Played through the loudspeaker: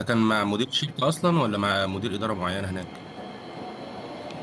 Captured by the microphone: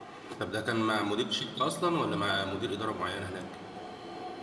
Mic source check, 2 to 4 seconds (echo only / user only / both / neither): echo only